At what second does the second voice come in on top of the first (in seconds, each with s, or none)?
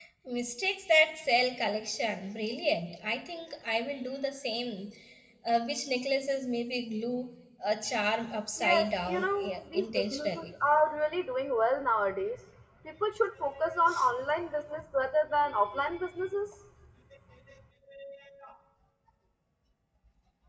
8.6 s